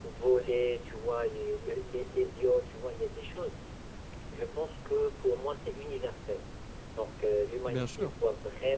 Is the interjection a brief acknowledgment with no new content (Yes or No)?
Yes